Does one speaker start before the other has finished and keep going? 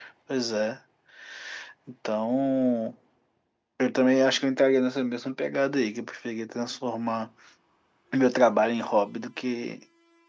No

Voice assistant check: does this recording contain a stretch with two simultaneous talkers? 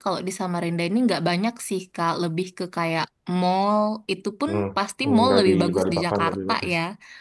Yes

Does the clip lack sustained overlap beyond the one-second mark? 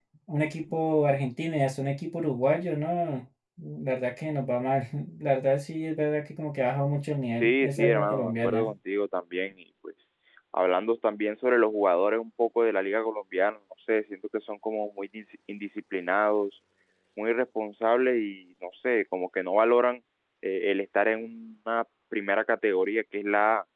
No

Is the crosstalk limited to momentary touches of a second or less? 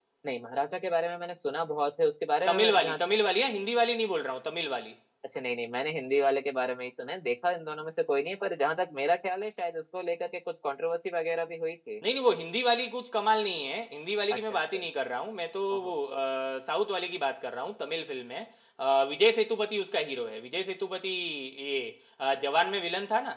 Yes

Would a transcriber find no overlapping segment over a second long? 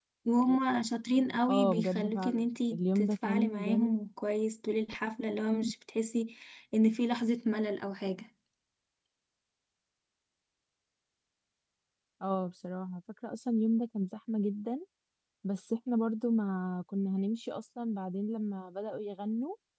No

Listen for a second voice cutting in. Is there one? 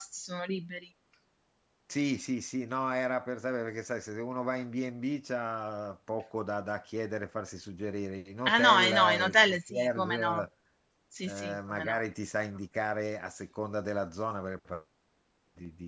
Yes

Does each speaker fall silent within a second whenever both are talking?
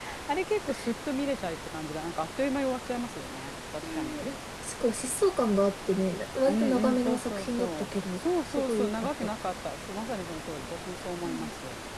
No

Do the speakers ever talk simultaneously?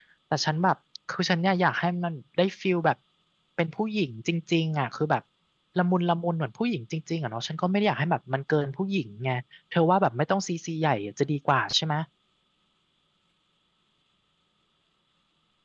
No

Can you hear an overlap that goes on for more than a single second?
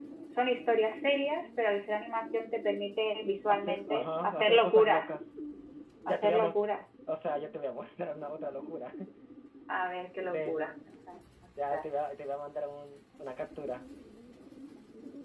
Yes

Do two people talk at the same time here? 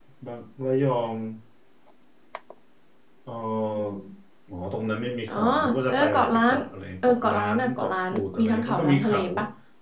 Yes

